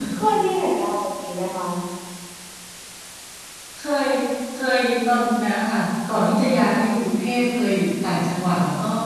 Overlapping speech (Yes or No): No